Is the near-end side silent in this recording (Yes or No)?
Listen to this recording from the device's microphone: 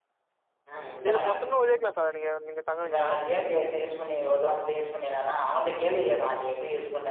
No